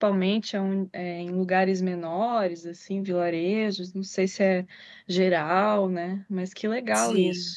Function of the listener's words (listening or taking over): taking over